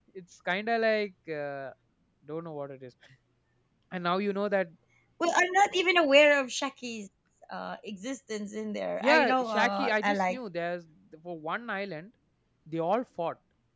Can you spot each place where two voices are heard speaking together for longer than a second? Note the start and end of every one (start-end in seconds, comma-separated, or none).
9.0-10.4